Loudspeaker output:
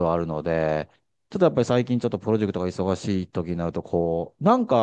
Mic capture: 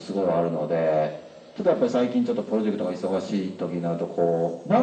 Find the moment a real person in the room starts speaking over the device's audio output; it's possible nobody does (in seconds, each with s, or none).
none